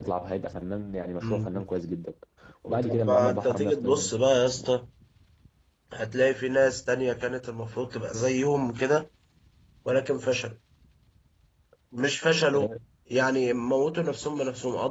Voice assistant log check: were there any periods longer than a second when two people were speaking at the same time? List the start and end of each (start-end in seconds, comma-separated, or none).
2.7-4.1